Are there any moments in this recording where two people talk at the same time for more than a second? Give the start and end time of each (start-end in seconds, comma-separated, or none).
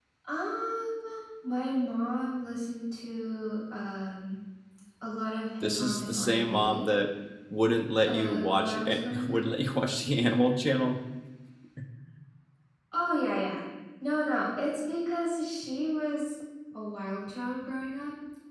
5.6-6.8, 8.1-9.5